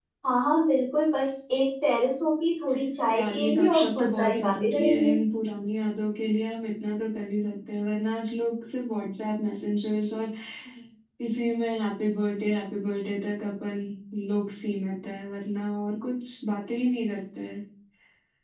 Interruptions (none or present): present